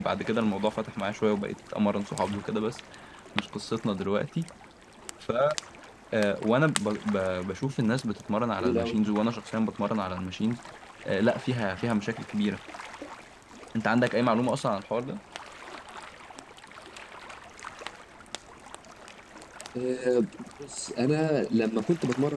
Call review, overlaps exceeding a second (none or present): none